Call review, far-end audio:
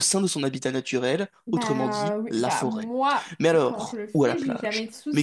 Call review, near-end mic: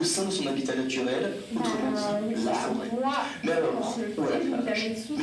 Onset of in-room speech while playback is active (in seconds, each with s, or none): none